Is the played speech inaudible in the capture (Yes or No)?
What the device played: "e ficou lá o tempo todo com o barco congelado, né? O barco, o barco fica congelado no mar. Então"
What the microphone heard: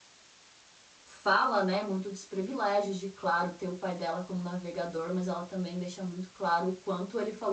Yes